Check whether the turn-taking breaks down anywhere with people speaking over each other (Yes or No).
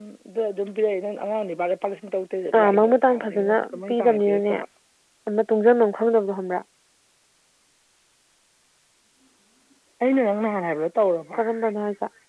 Yes